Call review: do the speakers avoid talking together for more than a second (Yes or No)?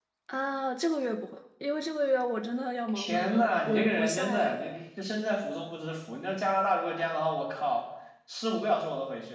No